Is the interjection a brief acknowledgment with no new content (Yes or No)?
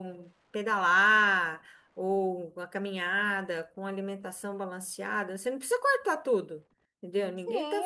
No